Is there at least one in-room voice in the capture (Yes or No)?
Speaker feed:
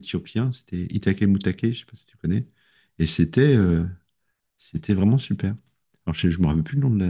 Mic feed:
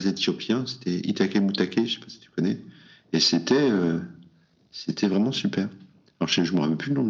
No